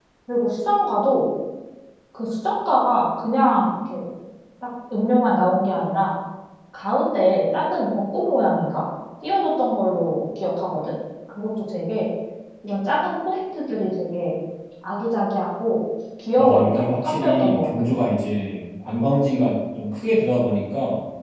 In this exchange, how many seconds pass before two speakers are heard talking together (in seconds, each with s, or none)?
16.4 s